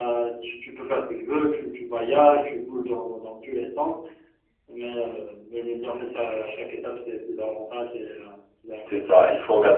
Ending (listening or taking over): taking over